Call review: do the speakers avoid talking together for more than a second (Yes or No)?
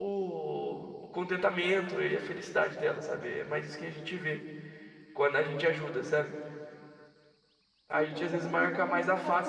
No